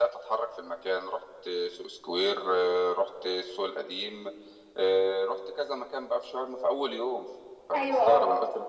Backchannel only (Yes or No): Yes